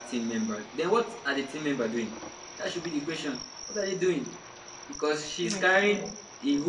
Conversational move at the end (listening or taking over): listening